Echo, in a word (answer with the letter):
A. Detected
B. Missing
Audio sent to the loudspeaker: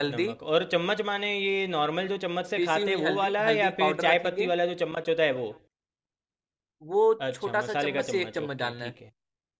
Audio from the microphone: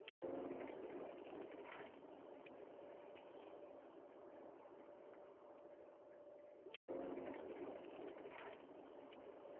B